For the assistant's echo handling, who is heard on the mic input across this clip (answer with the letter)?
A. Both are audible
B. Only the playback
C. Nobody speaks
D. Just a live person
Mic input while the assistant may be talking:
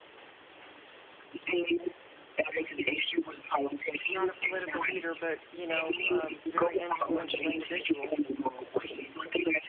A